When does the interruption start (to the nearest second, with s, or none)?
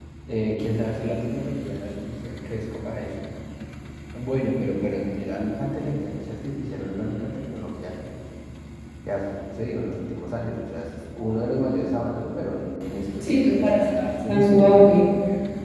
13 s